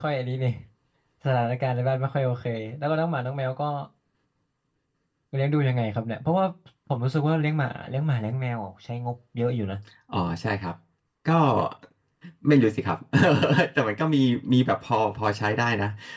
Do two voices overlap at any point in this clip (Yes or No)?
No